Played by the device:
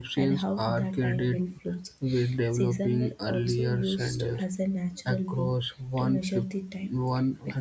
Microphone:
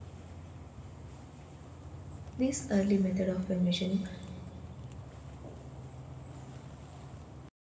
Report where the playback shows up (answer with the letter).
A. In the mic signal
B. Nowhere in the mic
B